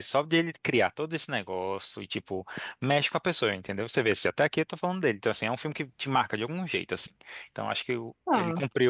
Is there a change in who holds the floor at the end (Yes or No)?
No